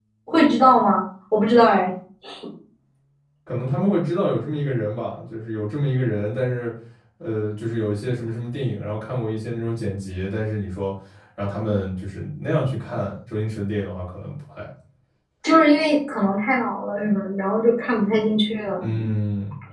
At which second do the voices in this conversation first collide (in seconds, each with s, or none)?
none